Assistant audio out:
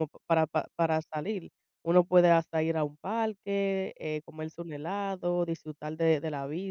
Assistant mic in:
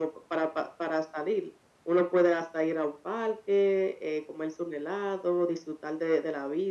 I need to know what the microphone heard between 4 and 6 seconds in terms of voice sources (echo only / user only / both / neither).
echo only